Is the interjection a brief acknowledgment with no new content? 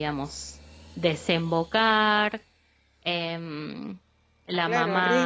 No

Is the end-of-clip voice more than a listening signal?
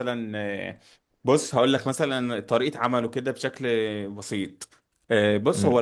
No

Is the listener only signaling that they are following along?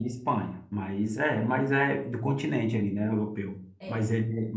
Yes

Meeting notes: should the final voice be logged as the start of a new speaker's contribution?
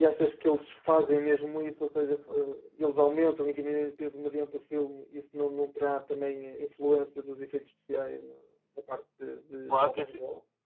Yes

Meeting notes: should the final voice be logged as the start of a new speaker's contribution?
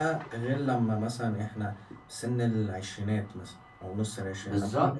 Yes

